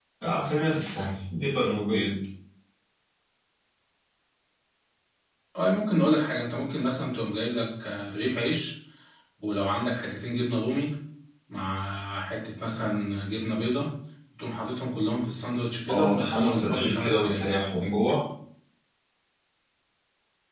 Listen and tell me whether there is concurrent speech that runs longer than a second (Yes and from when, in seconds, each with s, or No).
Yes, from 15.9 s